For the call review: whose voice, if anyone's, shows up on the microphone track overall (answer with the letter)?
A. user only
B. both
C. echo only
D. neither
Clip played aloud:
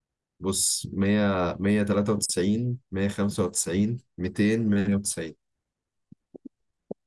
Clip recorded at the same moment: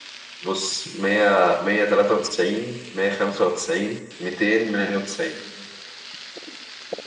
C